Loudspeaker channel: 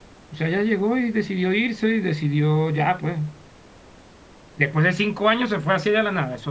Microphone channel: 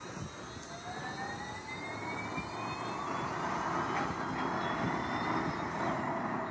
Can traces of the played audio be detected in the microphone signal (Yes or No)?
No